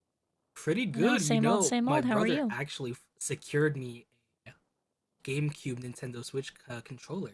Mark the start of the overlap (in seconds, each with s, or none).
0.9 s